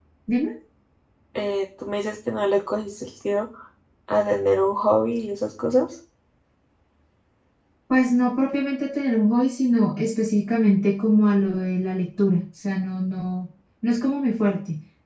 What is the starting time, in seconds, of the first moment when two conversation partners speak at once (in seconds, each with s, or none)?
none